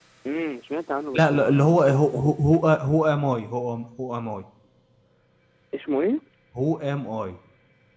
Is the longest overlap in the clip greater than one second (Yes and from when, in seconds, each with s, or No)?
Yes, from 1.1 s